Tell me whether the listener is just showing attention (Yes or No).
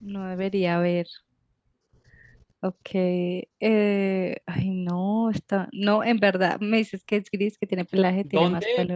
No